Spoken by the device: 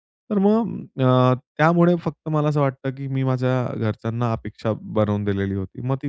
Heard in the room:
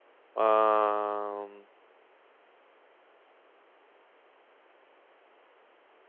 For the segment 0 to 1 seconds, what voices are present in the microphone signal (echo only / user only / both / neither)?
user only